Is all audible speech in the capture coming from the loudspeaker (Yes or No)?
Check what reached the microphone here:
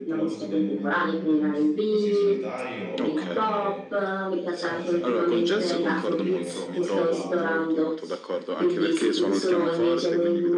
No